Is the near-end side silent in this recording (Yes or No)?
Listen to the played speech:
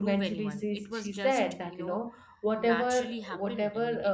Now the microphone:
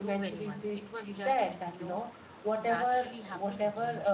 Yes